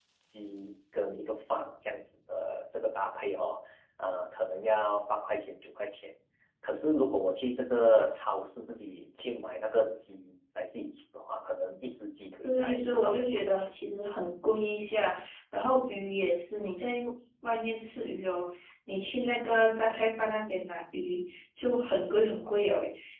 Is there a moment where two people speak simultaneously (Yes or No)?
Yes